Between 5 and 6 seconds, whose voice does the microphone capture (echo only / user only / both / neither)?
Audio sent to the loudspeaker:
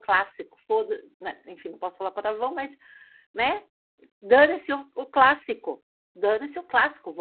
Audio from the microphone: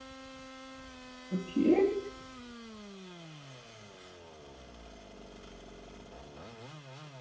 neither